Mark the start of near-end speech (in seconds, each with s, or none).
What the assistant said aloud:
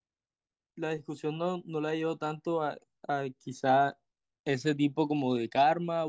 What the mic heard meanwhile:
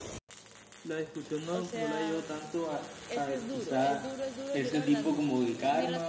1.5 s